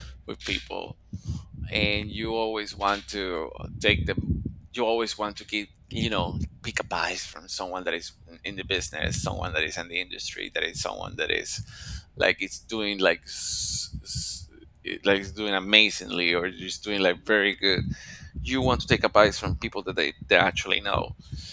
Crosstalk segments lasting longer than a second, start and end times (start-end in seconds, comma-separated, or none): none